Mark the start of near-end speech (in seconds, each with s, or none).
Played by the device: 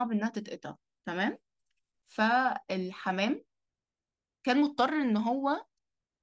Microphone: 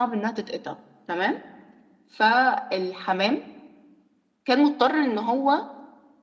none